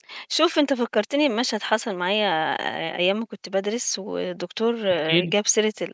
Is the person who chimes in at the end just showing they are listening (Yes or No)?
Yes